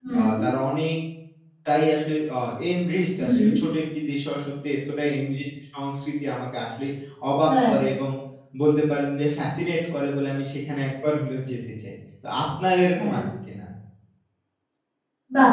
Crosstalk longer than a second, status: none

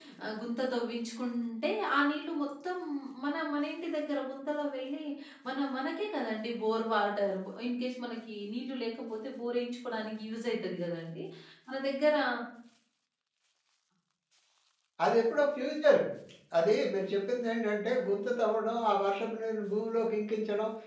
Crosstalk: none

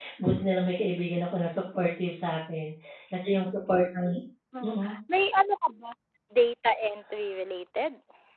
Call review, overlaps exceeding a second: none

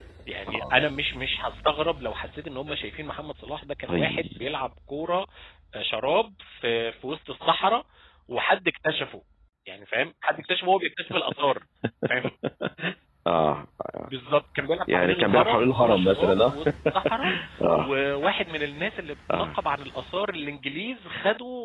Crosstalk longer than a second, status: present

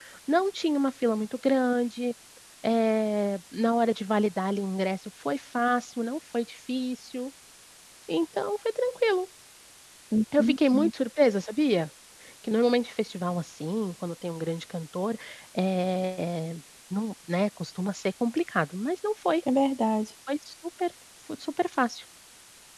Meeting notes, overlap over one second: none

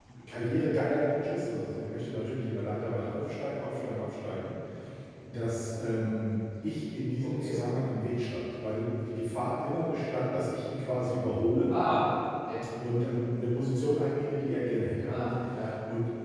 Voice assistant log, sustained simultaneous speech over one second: none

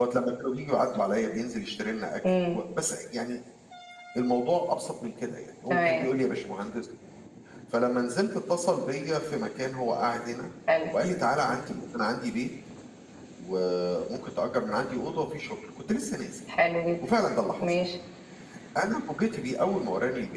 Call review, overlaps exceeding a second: none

